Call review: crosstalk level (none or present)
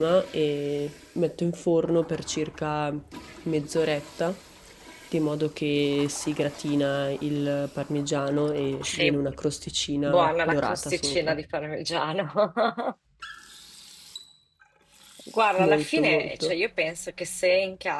present